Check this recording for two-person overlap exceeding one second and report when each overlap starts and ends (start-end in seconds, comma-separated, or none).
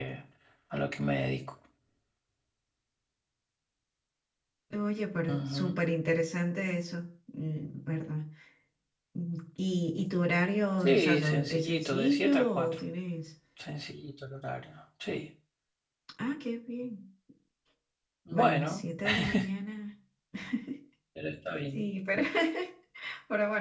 10.8-12.8